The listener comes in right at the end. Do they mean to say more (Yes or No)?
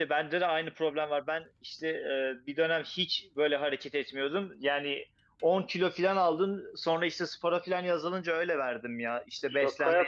Yes